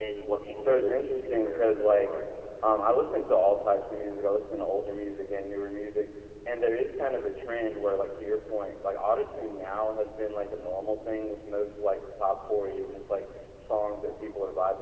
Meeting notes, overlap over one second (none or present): present